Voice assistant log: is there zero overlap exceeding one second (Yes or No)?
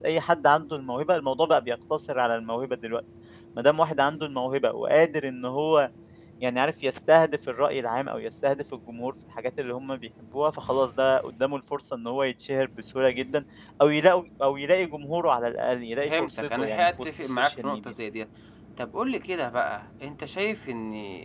No